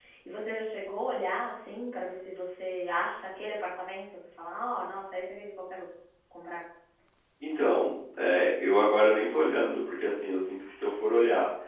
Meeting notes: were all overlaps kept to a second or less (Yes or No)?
Yes